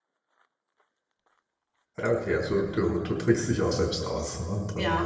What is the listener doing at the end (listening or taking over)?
taking over